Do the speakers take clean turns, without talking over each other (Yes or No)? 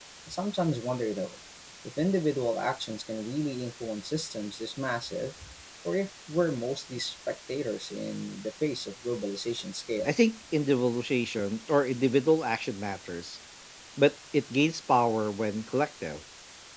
Yes